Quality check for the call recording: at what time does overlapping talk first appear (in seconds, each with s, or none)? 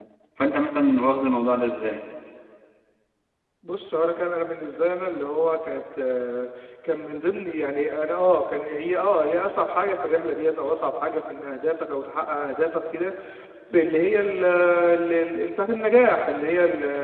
none